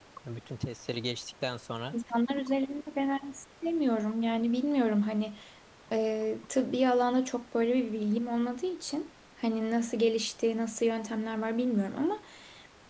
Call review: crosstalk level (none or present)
none